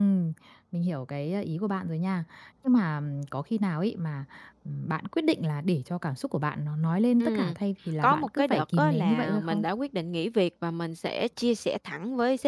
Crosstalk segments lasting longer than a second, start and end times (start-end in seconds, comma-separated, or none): 8.0-9.6